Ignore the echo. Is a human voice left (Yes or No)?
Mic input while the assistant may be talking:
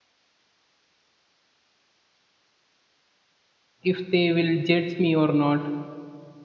Yes